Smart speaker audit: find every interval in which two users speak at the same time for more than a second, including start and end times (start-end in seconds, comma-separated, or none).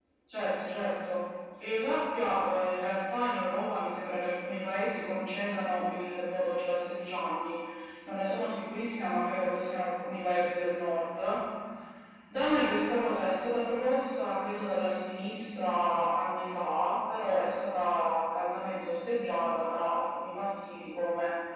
none